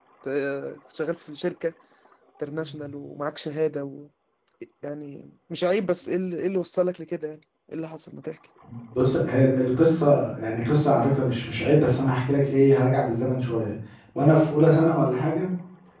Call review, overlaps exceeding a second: none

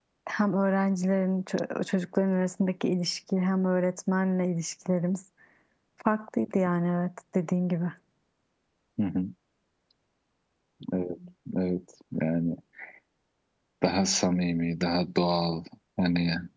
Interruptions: none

